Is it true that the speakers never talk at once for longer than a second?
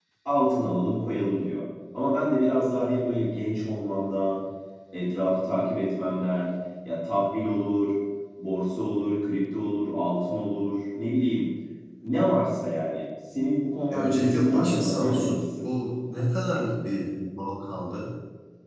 No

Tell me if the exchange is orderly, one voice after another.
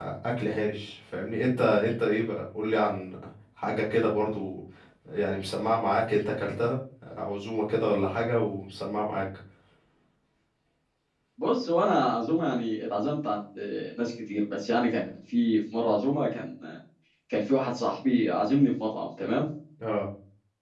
Yes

